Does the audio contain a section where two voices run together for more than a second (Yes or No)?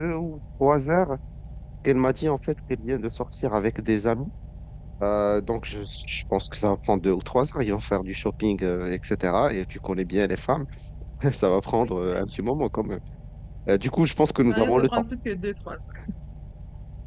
No